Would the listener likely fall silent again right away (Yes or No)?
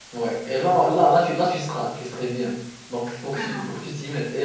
Yes